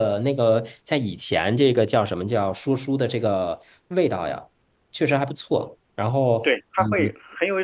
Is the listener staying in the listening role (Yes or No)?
No